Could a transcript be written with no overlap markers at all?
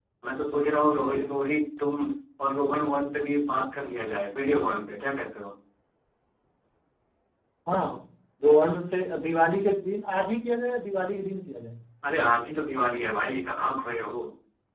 Yes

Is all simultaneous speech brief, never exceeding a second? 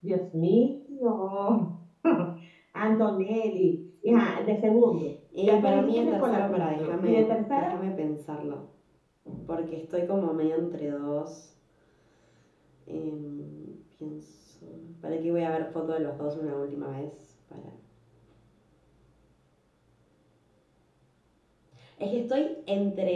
No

